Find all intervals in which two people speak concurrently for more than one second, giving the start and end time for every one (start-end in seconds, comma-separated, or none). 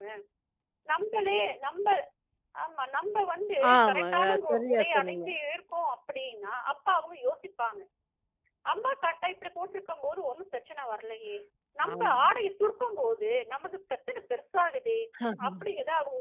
3.7-5.2